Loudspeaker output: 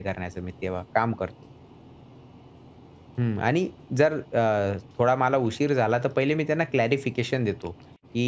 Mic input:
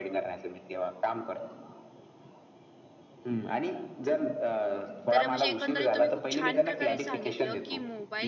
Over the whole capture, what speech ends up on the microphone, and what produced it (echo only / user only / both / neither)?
both